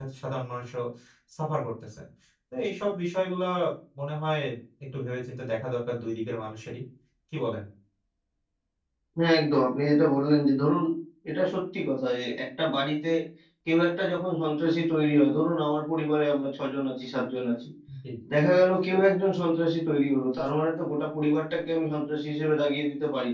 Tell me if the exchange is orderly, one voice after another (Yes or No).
Yes